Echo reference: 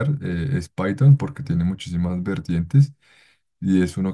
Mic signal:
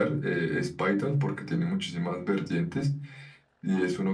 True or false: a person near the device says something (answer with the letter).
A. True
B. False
B